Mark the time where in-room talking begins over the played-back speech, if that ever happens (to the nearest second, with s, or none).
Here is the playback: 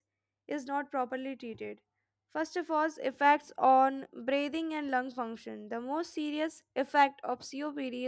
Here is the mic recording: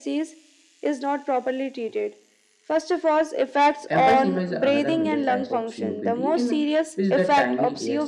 4 s